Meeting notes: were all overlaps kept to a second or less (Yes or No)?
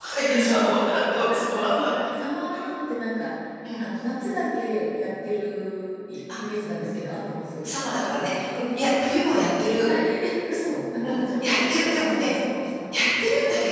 No